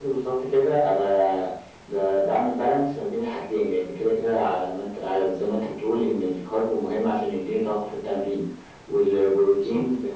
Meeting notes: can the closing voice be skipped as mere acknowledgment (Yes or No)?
Yes